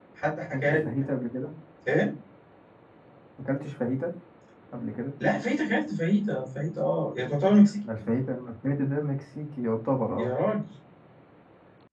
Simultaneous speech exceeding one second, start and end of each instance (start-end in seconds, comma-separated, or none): none